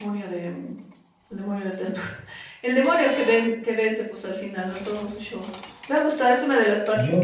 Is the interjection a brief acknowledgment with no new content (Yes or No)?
Yes